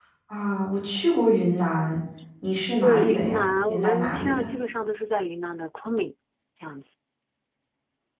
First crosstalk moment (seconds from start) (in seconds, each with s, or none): 2.8 s